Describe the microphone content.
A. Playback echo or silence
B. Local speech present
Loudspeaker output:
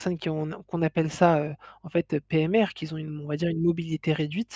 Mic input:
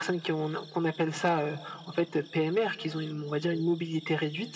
A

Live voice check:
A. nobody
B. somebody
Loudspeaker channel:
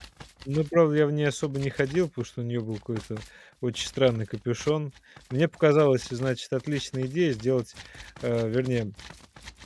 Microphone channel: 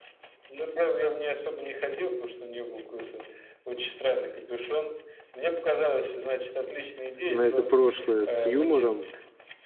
B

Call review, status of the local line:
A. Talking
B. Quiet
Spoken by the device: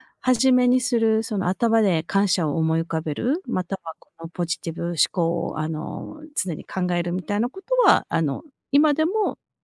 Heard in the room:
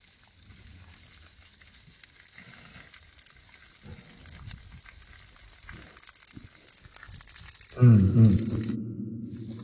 A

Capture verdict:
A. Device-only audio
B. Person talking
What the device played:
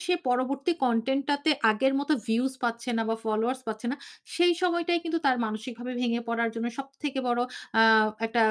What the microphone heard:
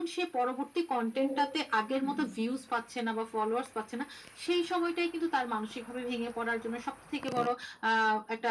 B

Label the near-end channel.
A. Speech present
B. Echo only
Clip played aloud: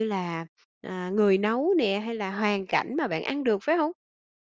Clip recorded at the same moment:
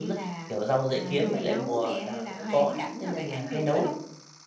A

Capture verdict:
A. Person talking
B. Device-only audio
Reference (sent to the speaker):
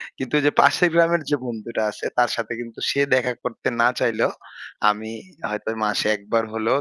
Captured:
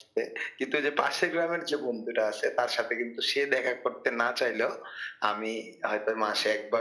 B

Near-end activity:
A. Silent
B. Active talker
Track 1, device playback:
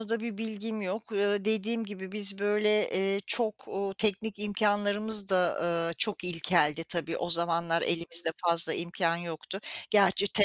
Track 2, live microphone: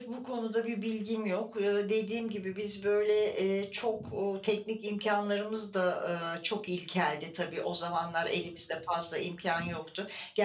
A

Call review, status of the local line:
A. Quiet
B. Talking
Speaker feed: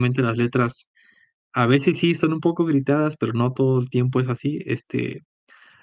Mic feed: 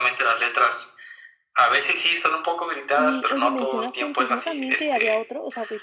B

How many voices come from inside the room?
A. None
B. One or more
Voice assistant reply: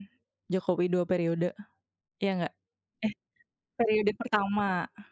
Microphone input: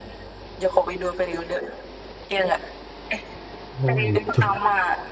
B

